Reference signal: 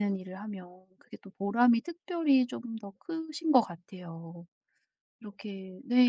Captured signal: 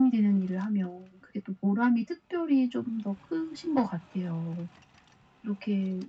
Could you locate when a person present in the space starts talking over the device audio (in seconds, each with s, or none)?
none